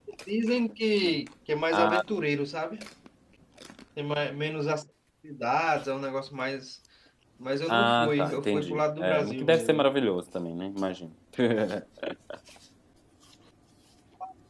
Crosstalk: present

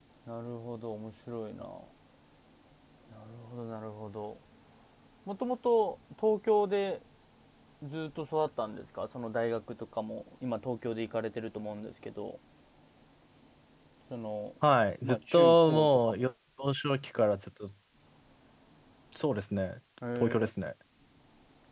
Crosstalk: present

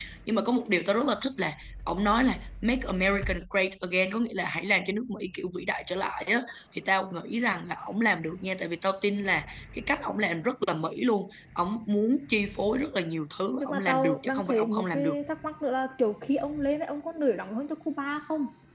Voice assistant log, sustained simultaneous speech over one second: present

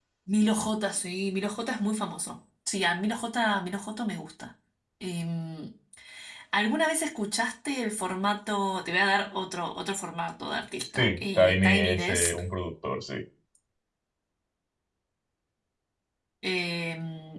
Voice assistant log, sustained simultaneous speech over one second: present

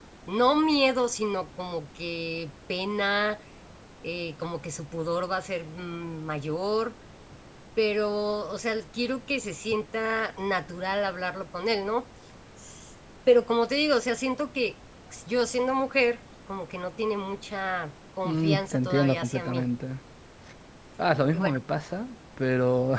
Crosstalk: present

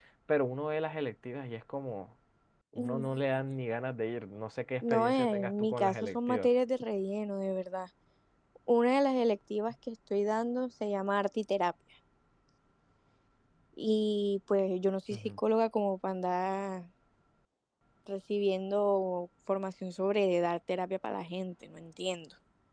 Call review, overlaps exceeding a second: present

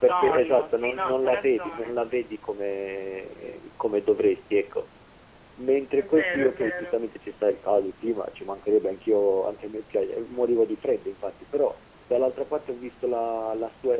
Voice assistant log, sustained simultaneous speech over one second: present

